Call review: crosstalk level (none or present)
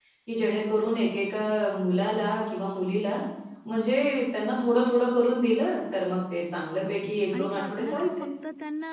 present